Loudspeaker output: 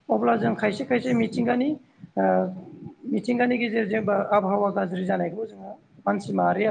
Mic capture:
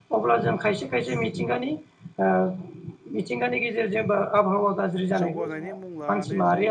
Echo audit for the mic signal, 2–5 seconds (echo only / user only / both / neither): echo only